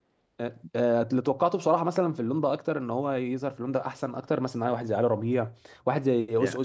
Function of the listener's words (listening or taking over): taking over